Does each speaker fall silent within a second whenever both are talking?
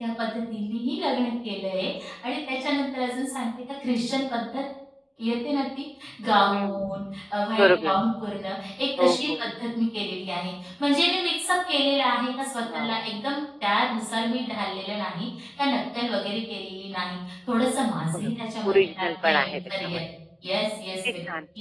No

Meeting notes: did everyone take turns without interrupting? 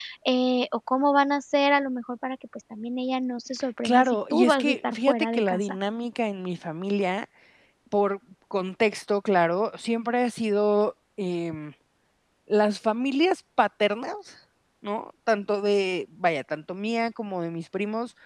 No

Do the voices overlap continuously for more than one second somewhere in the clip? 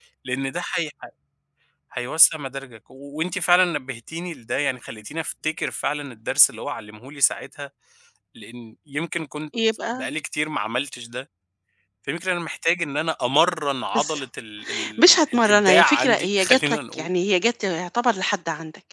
Yes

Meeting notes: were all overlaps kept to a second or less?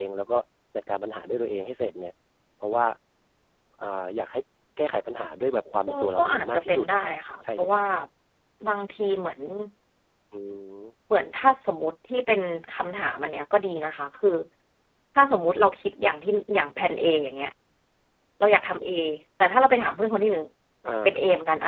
No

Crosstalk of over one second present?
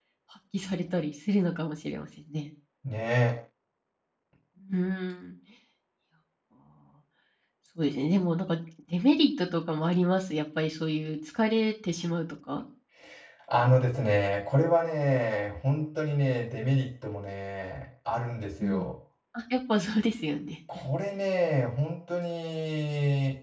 No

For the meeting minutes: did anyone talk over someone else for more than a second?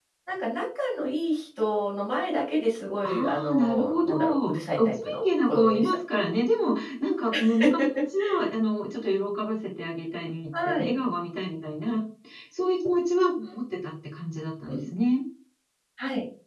Yes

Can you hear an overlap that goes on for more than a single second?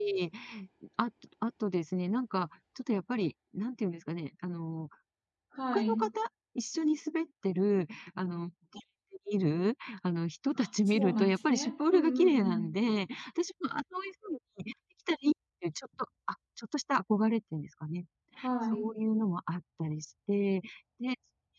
Yes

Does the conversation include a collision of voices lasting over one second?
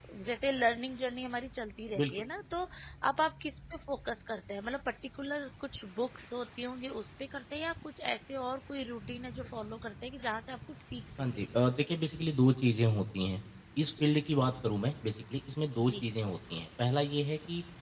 No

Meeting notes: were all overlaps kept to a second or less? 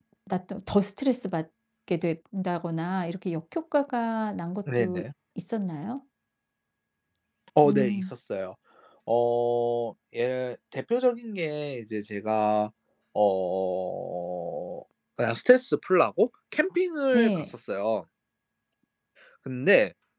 Yes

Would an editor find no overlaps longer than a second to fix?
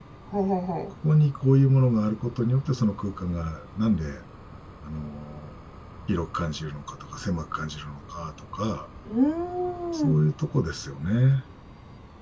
Yes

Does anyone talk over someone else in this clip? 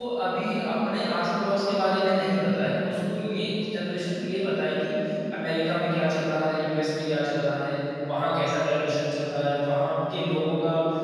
No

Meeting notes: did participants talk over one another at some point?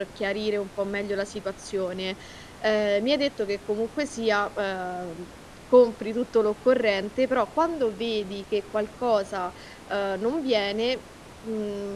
No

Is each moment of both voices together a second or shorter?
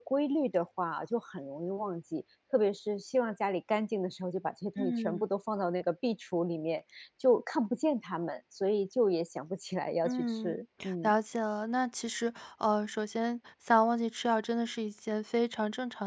Yes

